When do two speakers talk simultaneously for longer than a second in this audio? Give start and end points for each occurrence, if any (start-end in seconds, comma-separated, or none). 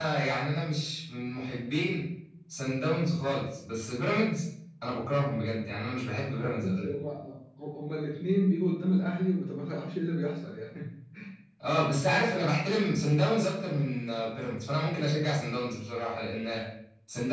none